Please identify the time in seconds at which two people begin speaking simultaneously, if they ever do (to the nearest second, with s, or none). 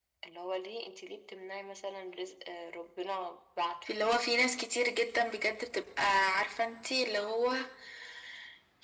none